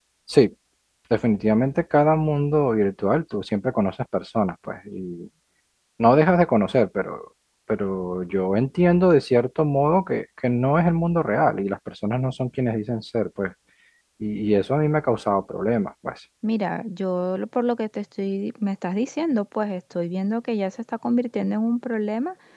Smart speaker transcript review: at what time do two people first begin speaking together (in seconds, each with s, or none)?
none